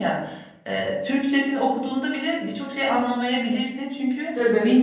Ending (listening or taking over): listening